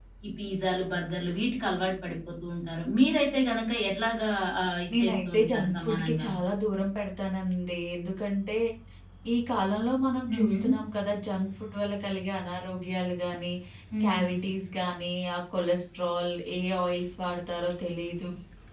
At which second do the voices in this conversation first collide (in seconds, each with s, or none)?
4.9 s